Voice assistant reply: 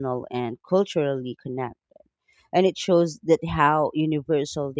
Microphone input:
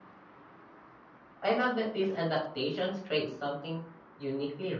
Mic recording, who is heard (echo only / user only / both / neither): user only